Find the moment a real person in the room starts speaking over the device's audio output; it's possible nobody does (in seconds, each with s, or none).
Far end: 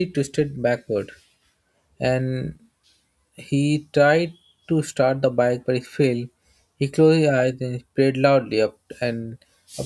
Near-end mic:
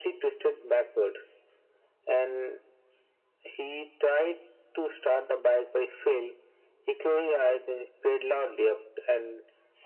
none